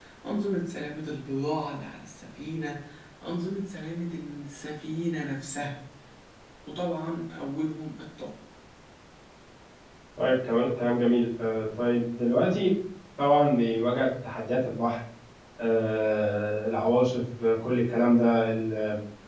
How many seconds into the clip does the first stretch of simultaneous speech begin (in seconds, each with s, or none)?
none